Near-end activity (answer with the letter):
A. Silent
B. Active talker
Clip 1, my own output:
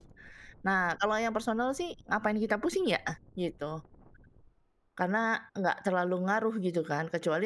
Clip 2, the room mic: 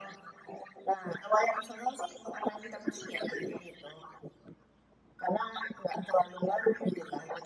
A